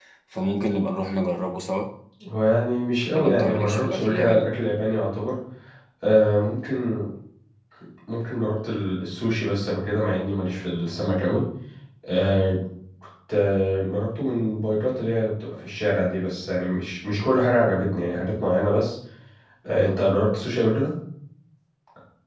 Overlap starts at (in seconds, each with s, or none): 3.2 s